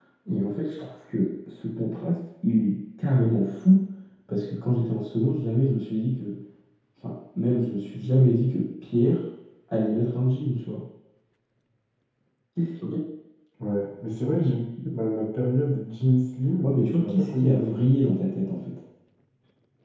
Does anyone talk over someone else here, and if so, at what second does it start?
16.6 s

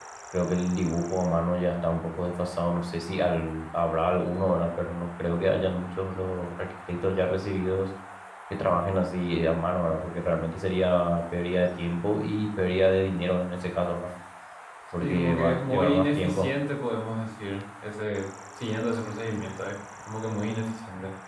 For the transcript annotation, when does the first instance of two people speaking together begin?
15.0 s

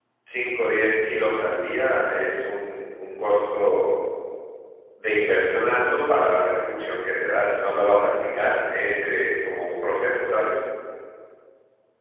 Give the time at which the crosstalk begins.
none

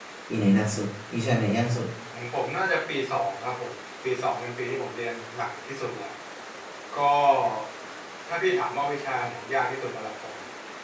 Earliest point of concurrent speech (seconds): none

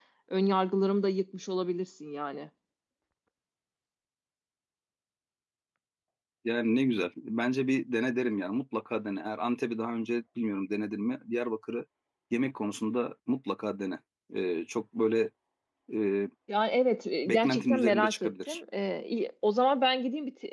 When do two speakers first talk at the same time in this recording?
17.2 s

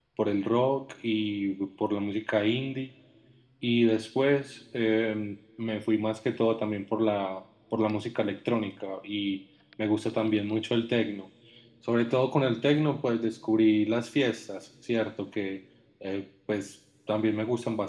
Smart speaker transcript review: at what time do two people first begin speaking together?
none

